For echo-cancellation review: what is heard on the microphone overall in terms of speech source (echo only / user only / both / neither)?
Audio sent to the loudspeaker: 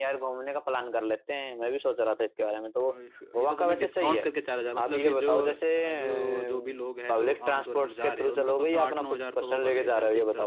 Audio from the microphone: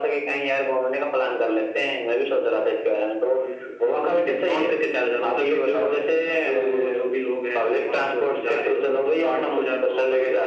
echo only